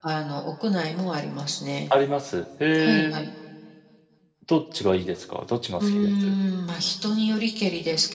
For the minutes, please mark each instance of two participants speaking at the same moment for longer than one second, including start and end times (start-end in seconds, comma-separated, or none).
none